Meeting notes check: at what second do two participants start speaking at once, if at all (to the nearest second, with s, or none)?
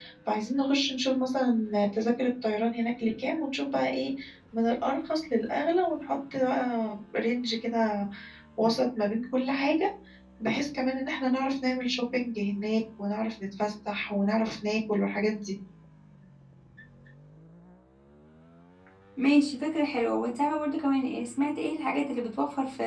none